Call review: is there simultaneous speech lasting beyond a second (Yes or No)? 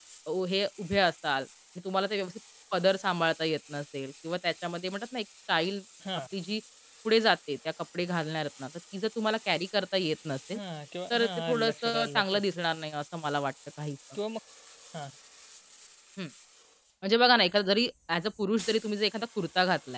Yes